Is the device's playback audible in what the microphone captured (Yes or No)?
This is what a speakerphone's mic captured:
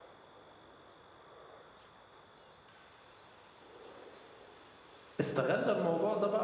No